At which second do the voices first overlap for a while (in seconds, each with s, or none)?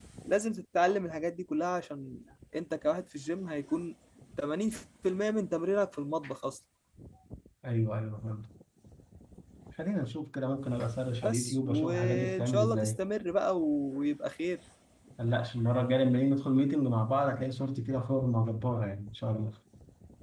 11.2 s